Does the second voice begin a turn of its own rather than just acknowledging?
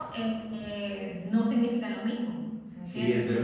Yes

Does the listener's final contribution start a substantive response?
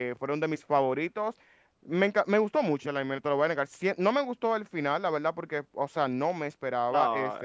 No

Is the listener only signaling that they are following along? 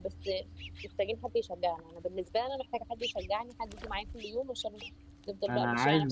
No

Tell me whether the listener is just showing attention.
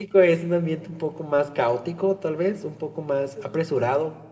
Yes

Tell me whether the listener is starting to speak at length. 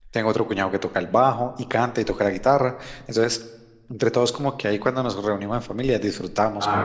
Yes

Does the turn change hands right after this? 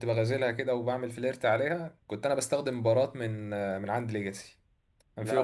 No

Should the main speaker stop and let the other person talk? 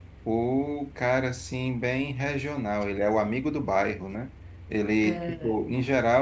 No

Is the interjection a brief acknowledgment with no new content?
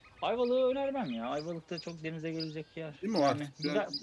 No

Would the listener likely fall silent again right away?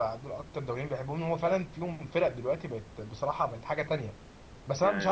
Yes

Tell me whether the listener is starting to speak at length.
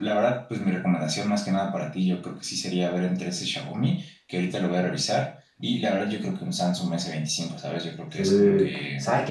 Yes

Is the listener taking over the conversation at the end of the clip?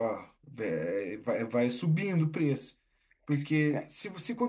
No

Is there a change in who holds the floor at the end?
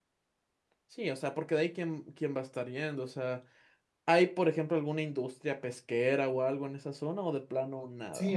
Yes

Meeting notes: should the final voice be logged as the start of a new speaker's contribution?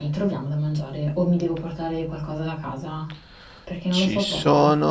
Yes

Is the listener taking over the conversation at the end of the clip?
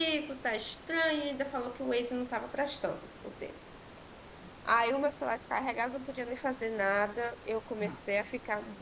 No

